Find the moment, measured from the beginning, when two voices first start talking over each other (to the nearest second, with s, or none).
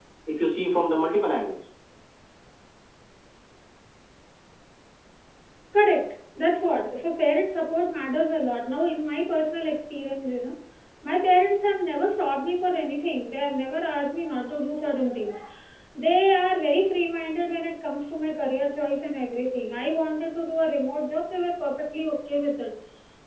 none